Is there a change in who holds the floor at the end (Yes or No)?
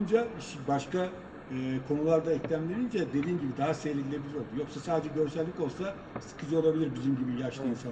Yes